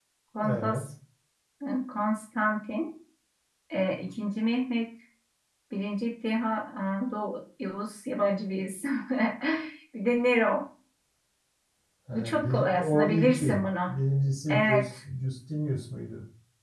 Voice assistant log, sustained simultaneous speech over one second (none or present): present